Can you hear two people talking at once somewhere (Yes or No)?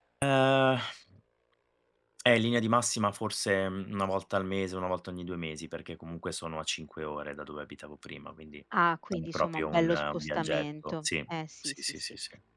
Yes